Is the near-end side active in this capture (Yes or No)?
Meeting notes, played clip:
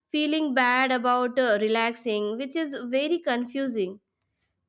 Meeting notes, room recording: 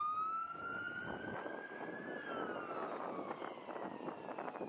No